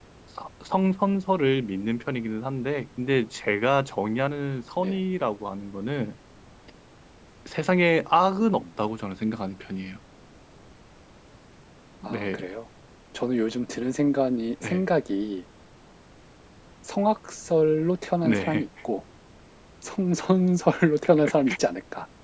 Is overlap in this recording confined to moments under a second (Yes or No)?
Yes